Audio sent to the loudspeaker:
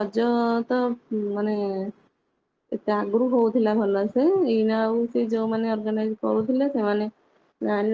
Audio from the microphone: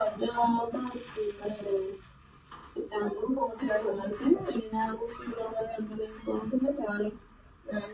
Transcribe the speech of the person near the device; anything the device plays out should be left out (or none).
none